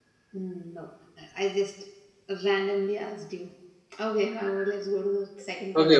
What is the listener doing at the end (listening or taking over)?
taking over